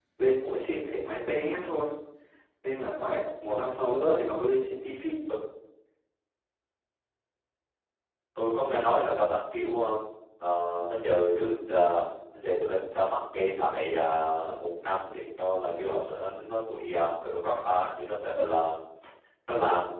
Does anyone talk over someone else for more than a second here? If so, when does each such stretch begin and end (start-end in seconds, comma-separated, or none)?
none